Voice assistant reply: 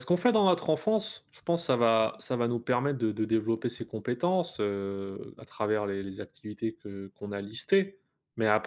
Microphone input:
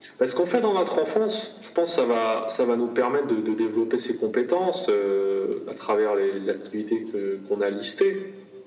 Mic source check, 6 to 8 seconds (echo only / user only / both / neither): echo only